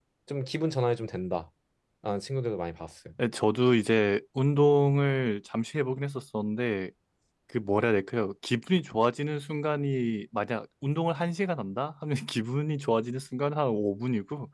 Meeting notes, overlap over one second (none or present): none